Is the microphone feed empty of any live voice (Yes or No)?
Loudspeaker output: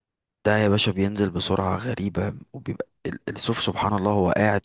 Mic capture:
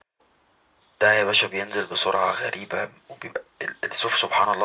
Yes